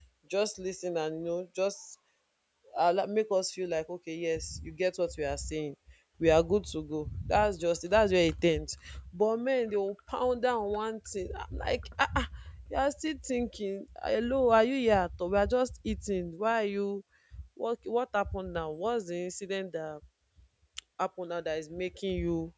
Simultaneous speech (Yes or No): No